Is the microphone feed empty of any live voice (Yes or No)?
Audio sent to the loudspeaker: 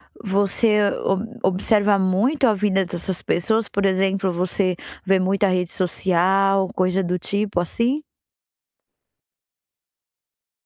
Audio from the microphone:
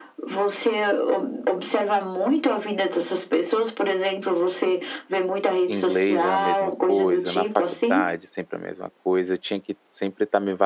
No